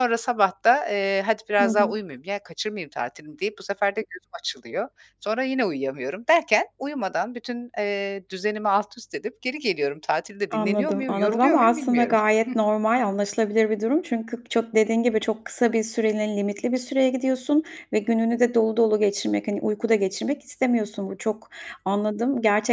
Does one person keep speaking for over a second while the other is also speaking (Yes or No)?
Yes